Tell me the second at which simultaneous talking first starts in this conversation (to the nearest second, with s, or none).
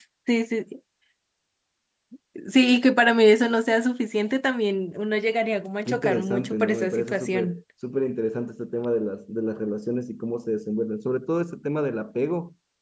6 s